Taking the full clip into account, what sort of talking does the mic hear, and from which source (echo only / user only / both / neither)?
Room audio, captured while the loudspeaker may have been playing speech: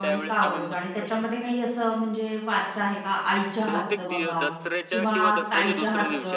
both